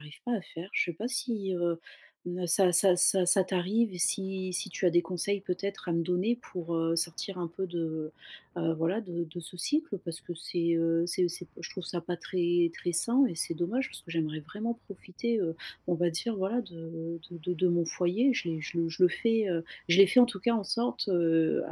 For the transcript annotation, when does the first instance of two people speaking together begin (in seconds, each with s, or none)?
none